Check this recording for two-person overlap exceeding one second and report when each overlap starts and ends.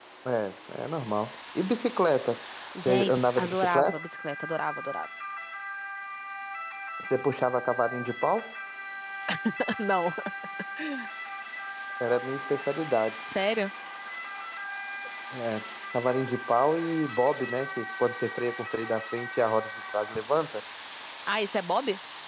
2.8-4.0

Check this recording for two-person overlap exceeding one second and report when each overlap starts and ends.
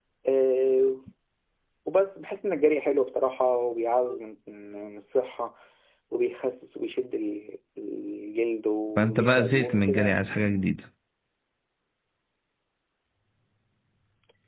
9.0-10.2

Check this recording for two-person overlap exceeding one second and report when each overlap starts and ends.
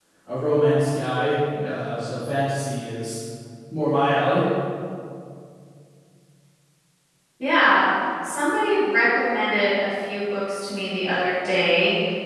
none

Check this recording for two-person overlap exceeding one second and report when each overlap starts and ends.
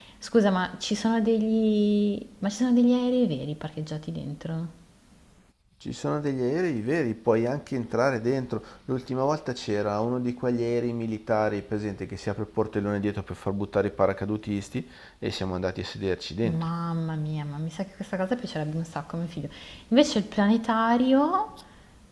none

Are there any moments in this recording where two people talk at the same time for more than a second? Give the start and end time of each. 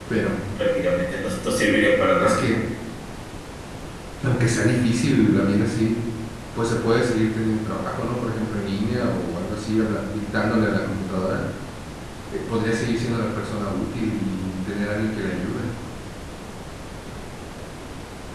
none

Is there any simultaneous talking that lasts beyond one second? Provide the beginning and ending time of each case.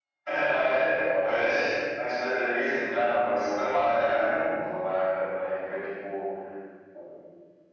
2.7-4.2

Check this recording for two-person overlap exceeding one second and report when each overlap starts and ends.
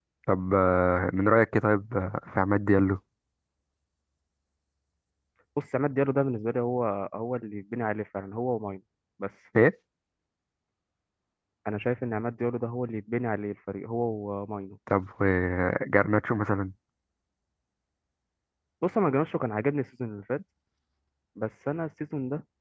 none

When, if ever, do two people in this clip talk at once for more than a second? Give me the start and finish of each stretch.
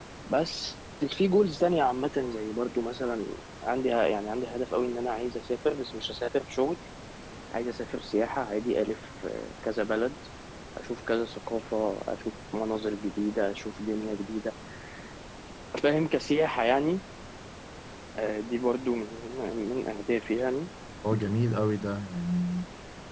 none

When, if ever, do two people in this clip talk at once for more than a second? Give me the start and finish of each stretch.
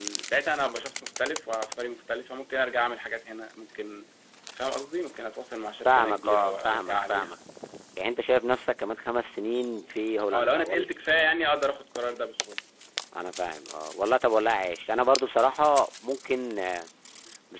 5.8-7.3

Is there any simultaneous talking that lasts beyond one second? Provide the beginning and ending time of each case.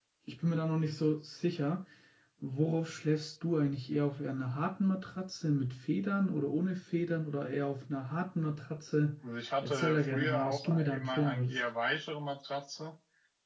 9.6-11.6

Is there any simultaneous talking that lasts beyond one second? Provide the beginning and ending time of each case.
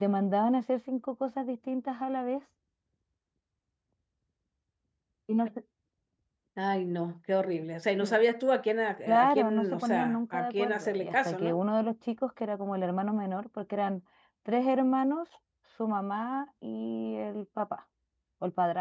9.1-11.6

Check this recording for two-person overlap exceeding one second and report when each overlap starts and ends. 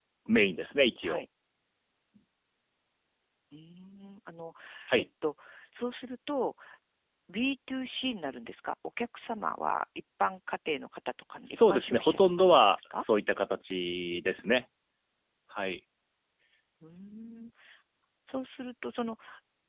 11.5-13.0

